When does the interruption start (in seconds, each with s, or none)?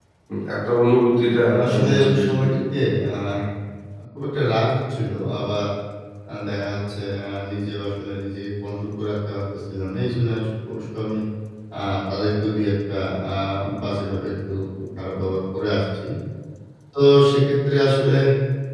1.4 s